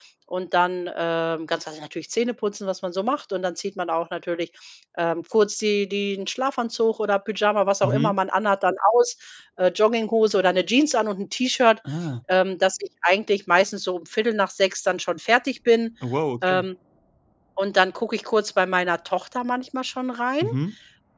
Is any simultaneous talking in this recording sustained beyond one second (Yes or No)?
No